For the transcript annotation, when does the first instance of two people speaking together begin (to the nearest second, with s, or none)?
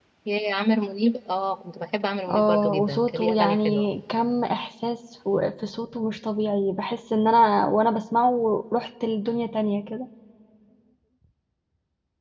2 s